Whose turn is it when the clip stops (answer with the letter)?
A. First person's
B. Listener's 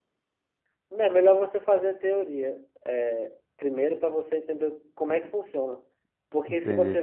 A